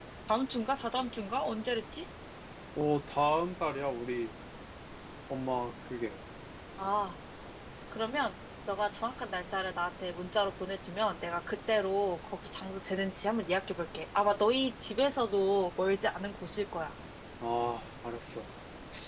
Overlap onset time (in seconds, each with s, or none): none